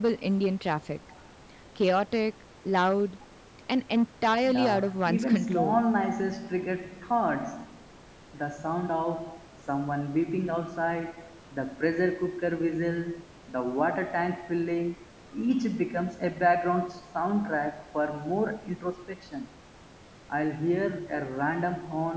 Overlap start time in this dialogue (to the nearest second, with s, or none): 4 s